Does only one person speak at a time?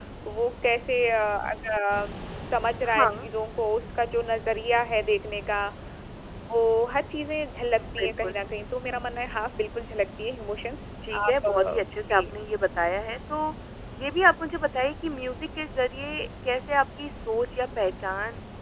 No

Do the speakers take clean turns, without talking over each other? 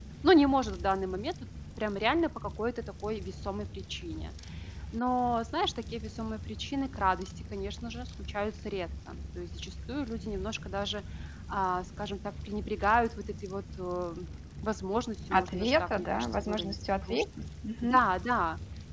No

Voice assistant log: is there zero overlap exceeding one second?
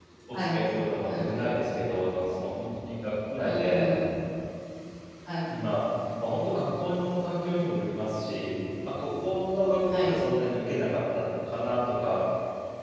Yes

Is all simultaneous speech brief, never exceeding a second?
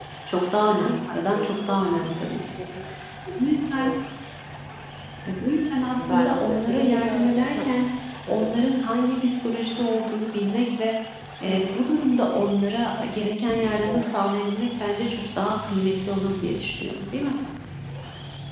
No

